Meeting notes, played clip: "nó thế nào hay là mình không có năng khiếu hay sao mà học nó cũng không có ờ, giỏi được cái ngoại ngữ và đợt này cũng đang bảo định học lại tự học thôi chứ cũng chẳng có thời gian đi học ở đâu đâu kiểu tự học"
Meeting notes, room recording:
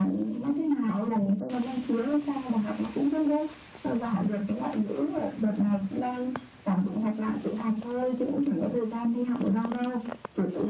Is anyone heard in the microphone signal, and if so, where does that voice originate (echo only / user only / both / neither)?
echo only